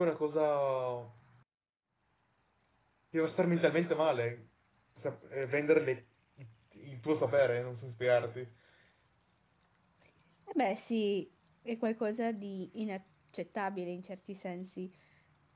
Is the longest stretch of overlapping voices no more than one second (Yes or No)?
Yes